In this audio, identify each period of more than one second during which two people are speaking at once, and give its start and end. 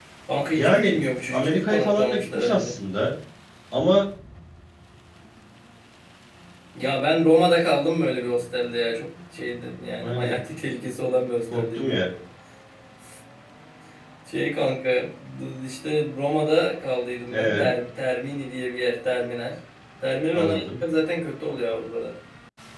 0.5-2.8

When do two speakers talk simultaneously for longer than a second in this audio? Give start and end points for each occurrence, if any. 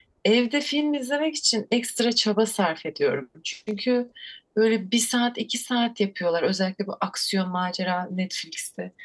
none

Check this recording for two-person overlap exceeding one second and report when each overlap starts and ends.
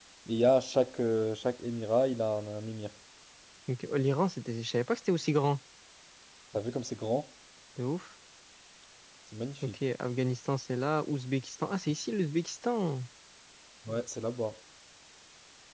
none

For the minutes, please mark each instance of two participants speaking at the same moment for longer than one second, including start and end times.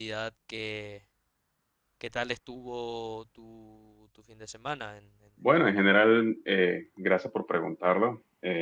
none

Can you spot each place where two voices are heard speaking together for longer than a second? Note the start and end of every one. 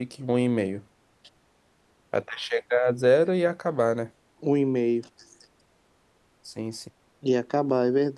none

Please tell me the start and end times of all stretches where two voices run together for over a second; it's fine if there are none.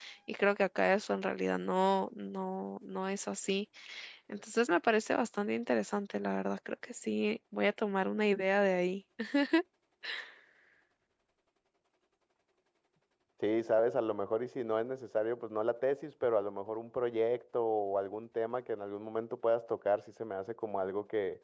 none

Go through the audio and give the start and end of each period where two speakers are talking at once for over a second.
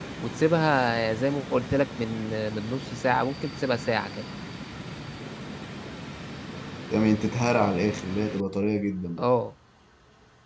none

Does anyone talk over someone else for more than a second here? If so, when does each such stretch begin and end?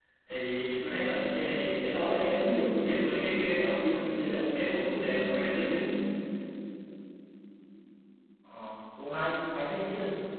none

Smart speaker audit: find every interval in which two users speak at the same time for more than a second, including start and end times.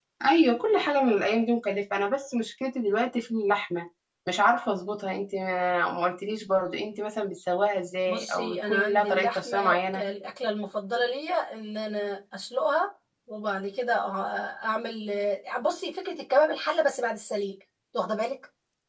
8.1-10.0

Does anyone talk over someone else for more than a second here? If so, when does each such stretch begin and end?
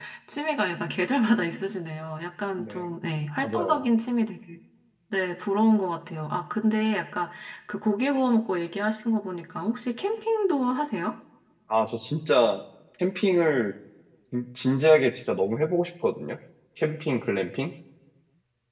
none

